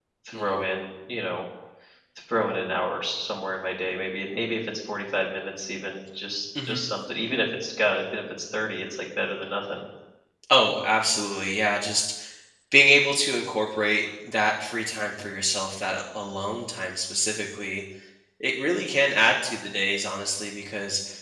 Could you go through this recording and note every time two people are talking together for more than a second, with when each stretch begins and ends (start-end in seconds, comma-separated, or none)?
none